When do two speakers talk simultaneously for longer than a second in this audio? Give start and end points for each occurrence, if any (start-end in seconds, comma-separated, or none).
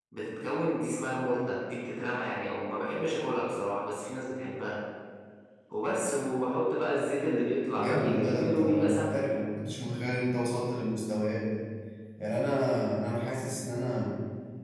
7.7-9.2